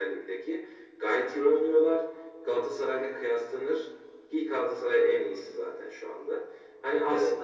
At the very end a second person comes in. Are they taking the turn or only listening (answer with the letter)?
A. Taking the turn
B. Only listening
B